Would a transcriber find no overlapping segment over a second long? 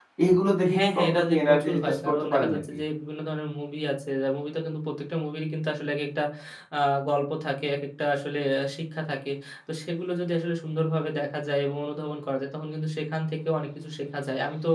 No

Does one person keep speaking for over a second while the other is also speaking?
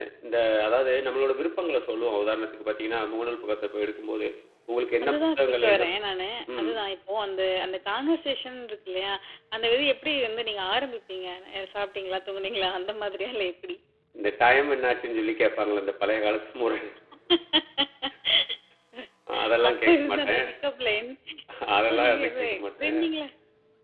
Yes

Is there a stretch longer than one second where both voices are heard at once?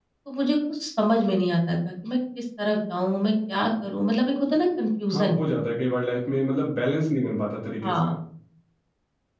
No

